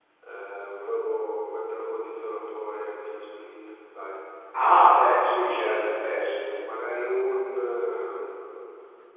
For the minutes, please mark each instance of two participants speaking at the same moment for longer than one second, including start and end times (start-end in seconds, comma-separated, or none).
5.0-6.4